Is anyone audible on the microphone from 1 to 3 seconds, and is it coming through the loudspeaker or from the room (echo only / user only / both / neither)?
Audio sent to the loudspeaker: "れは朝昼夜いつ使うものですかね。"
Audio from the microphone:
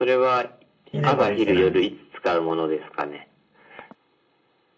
both